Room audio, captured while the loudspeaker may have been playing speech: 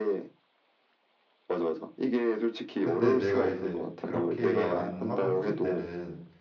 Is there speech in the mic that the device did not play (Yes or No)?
Yes